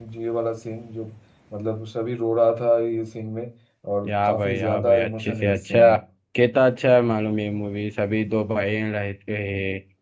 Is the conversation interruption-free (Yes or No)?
No